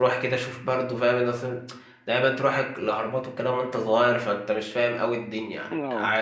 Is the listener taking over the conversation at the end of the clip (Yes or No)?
Yes